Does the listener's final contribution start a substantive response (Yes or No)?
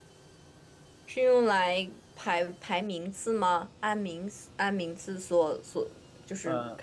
No